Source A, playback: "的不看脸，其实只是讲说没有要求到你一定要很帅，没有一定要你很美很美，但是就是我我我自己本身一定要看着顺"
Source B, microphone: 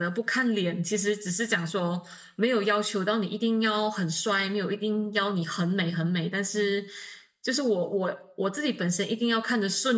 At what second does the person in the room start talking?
none

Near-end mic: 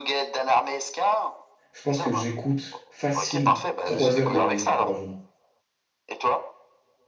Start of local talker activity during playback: 1.7 s

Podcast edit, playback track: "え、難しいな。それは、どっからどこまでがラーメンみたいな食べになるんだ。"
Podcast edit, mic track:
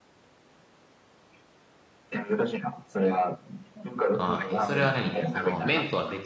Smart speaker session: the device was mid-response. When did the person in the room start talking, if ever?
4.1 s

